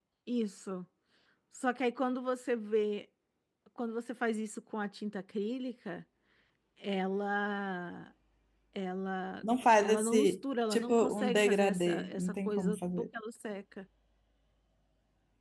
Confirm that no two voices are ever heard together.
No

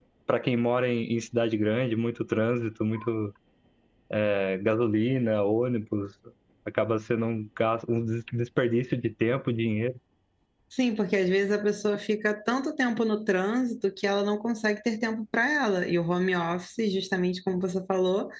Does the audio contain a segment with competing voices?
No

